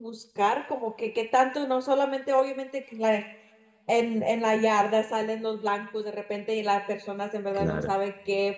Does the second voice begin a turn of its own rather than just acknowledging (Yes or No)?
No